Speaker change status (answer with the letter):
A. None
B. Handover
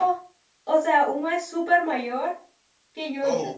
A